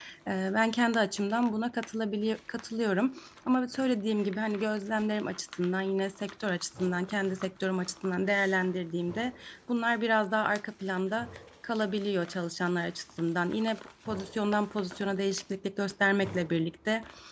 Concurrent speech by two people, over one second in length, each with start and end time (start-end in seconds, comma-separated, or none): none